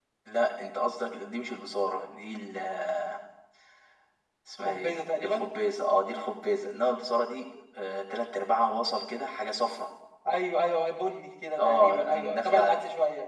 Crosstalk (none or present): present